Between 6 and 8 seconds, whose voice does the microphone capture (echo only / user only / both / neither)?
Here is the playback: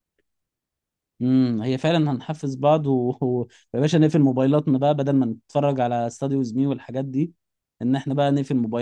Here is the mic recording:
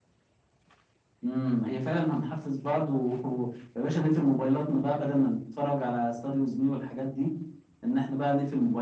echo only